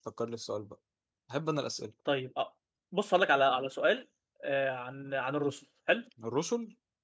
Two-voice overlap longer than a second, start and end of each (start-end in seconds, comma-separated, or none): none